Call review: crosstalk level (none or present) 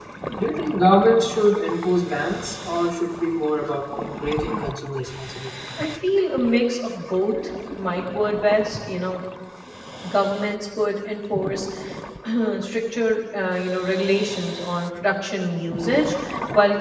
none